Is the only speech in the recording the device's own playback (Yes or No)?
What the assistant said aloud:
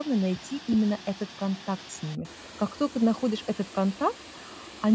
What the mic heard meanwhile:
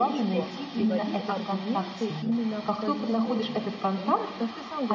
No